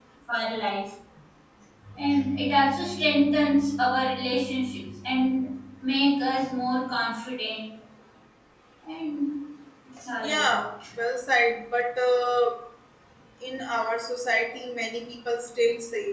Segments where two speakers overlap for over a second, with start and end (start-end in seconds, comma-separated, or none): none